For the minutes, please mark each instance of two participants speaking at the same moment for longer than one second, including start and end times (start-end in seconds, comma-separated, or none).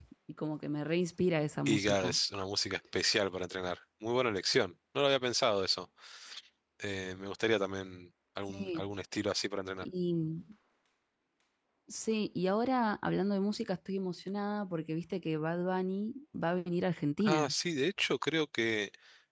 none